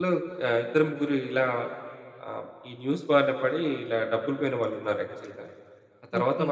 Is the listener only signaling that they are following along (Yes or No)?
Yes